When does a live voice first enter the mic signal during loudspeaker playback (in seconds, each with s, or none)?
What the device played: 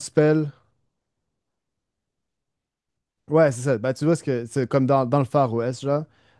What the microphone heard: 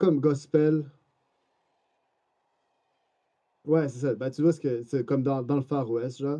none